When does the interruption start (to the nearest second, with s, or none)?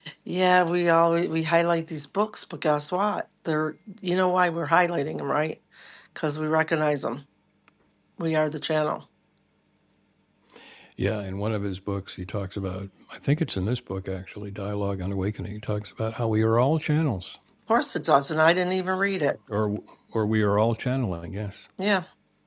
none